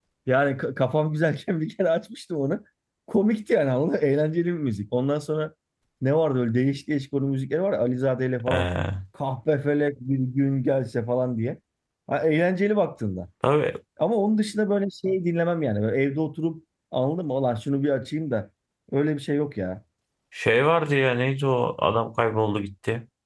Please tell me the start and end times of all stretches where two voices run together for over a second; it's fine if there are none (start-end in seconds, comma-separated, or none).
none